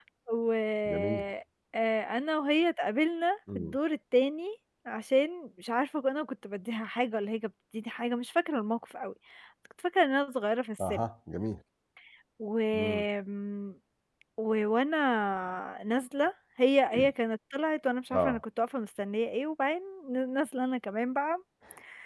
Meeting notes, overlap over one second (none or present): none